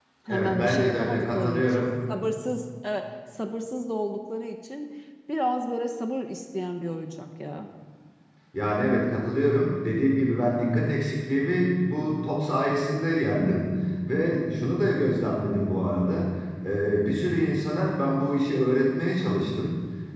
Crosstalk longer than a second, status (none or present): present